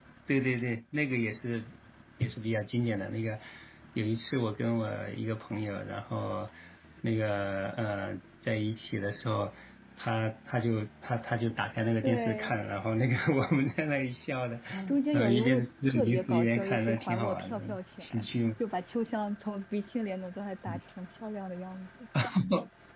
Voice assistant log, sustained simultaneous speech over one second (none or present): present